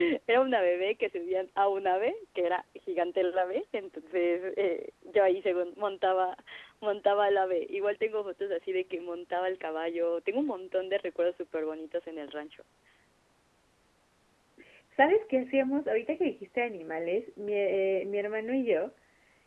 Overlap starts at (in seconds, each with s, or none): none